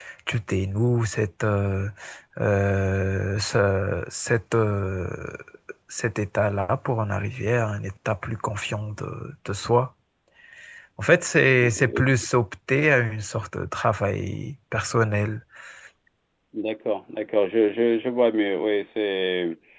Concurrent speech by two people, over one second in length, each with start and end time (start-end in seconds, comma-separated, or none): none